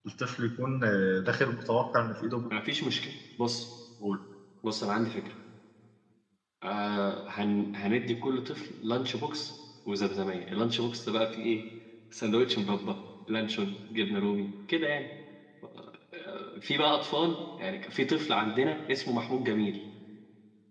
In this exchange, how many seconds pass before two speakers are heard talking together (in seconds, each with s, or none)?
none